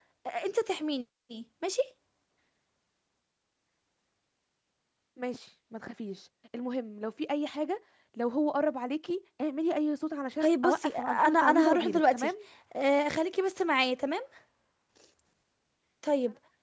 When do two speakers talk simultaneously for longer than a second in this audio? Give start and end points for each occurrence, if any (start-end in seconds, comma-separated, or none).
10.4-12.3